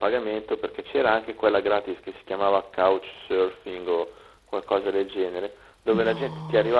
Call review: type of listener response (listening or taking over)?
listening